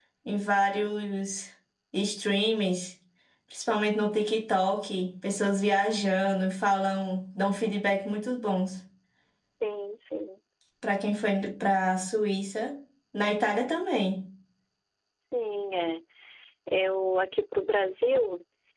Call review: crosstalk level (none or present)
none